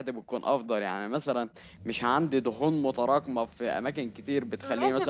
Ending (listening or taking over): taking over